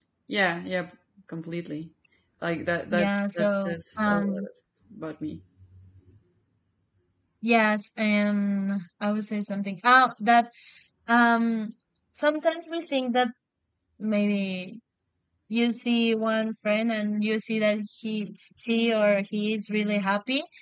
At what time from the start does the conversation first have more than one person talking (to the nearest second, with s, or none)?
3 s